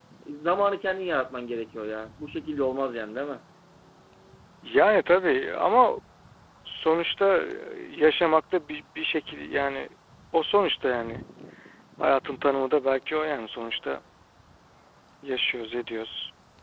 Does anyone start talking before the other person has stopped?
No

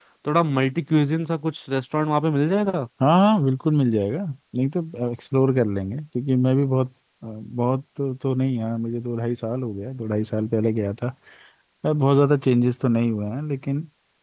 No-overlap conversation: Yes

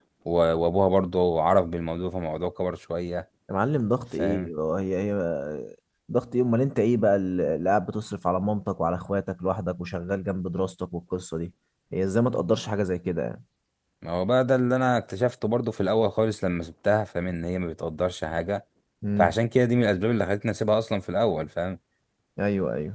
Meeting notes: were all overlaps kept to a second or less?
Yes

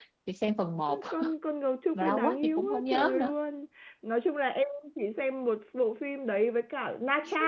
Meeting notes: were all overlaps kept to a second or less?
No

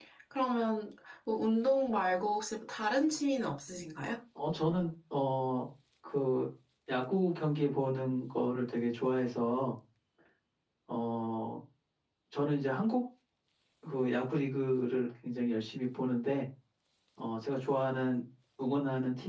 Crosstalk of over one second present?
No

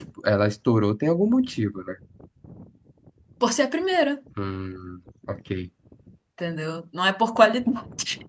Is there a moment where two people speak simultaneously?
No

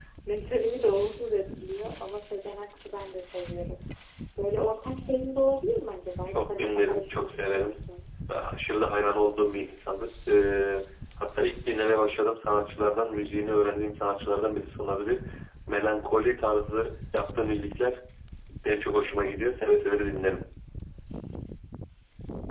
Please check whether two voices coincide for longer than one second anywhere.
Yes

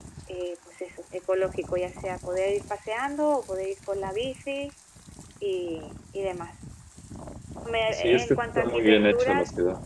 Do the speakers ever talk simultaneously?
Yes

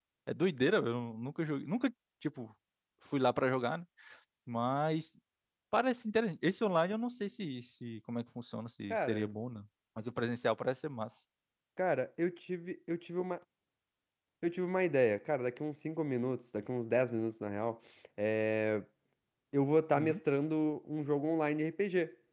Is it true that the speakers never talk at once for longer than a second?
Yes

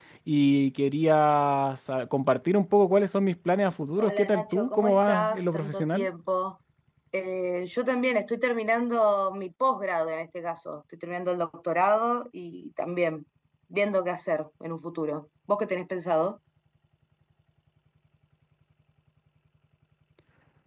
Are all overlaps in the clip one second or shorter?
No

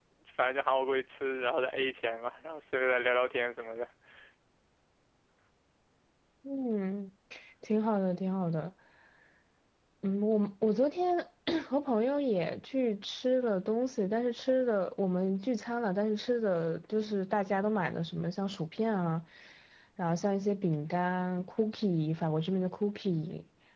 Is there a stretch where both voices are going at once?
No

